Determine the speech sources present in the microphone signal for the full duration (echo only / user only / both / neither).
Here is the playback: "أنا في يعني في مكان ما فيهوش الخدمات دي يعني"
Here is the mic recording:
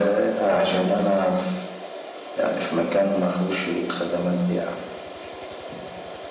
echo only